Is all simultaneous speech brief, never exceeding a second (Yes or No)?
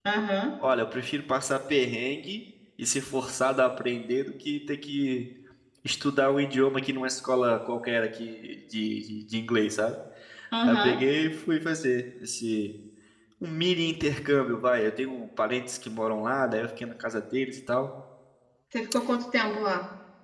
Yes